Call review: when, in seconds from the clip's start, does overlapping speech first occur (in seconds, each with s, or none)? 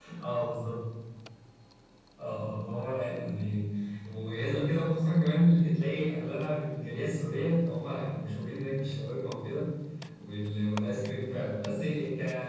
none